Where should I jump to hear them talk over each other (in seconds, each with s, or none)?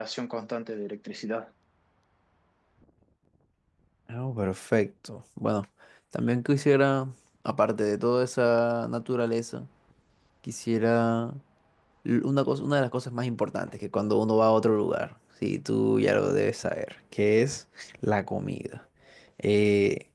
none